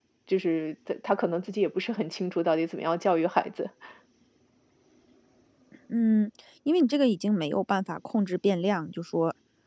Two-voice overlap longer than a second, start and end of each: none

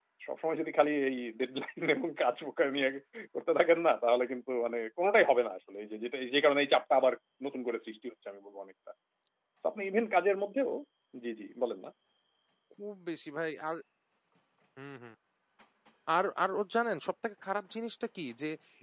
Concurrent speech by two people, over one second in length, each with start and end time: none

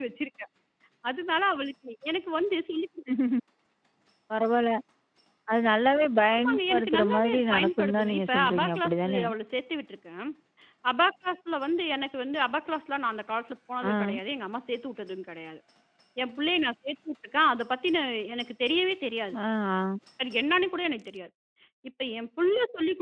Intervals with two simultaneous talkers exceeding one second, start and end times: 6.3-9.2

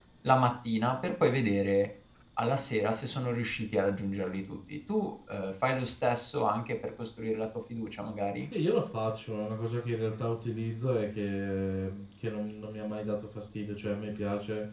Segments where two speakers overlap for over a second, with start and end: none

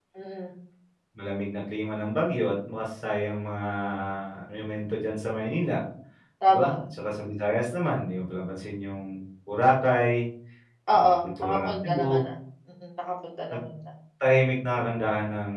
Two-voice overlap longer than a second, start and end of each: 10.9-12.2

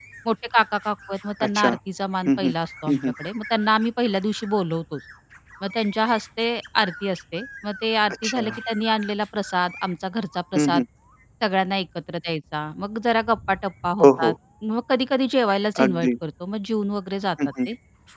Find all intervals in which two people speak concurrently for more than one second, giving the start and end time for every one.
none

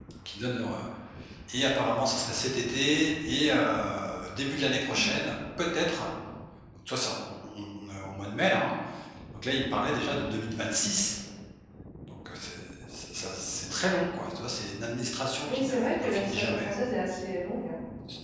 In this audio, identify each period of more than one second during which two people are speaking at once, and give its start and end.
15.4-16.7

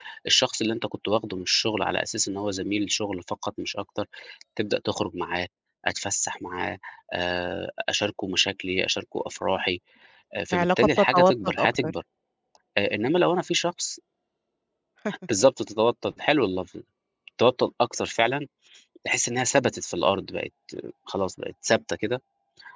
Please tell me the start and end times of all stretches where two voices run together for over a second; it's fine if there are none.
10.5-11.9

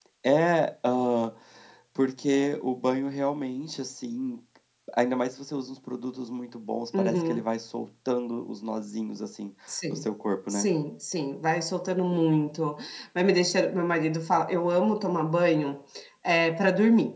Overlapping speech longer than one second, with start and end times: none

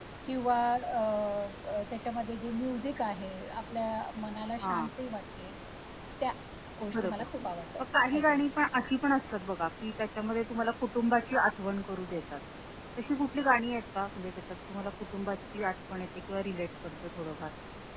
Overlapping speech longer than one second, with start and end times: none

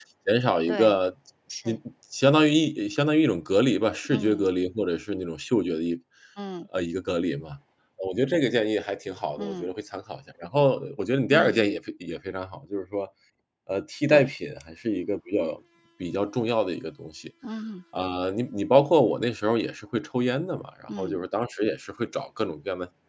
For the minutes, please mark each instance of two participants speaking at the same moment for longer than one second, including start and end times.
none

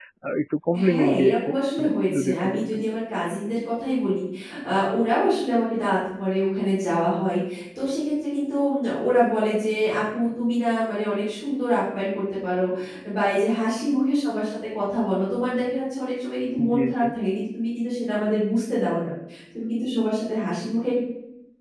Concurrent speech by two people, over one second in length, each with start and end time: 0.9-2.8

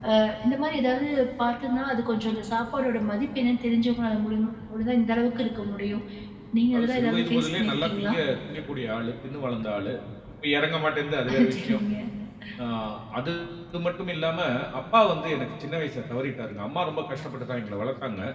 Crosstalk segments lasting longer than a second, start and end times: 6.7-8.1

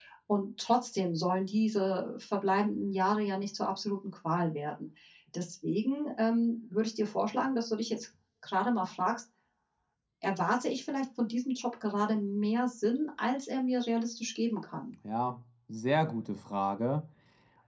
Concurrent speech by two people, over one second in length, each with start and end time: none

